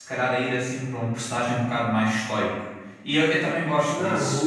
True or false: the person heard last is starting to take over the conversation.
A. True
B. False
A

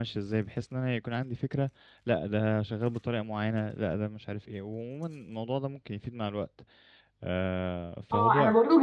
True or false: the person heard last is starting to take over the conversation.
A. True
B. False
A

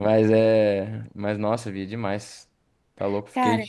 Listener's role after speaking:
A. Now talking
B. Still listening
B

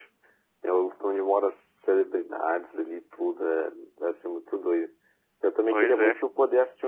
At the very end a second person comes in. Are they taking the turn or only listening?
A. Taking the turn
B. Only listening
B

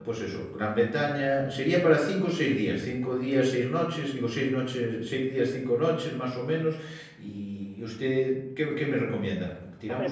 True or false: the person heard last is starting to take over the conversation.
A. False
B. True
A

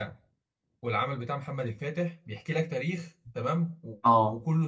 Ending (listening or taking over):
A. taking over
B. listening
B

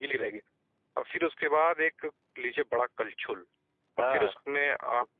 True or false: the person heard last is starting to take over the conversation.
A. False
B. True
A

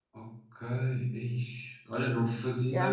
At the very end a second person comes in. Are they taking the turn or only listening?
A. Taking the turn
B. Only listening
B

